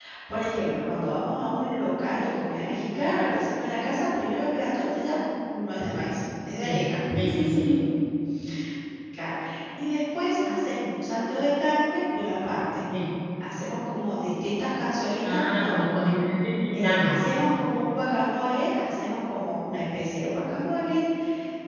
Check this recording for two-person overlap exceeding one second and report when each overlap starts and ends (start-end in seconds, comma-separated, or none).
none